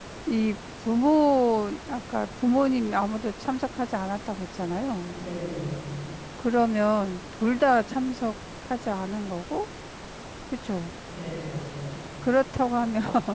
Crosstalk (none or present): none